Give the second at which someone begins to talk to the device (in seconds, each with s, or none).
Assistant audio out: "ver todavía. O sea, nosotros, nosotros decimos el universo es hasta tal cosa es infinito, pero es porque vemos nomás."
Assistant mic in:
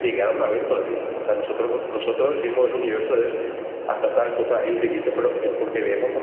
none